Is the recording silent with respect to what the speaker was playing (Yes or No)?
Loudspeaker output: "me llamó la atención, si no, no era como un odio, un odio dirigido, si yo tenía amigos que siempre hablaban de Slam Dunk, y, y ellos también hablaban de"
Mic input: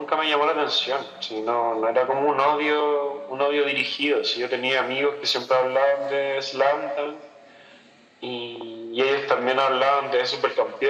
No